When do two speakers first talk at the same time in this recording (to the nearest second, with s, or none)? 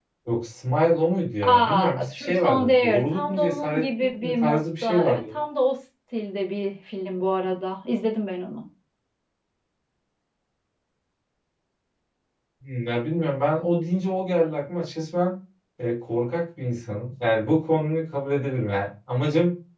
1 s